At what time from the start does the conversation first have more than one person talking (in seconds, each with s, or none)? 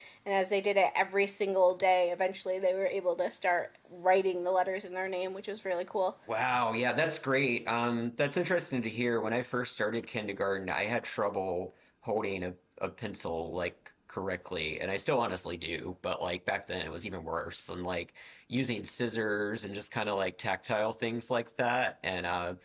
none